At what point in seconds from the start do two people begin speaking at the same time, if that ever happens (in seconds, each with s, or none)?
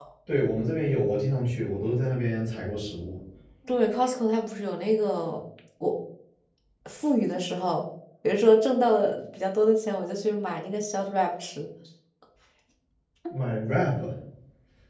none